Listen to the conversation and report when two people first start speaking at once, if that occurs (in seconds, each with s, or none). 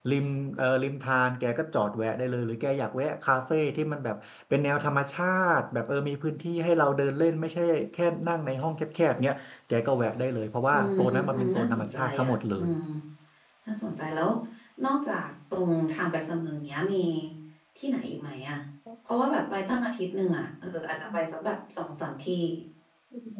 10.7 s